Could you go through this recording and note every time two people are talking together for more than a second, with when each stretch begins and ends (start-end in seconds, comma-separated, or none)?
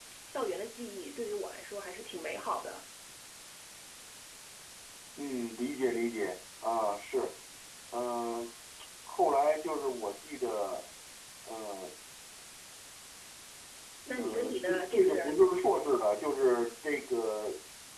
14.2-15.4